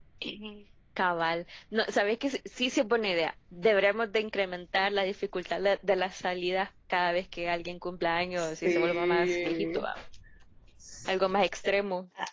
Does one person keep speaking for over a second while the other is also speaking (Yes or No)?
Yes